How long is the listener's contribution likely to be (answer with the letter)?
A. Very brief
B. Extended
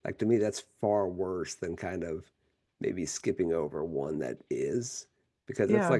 A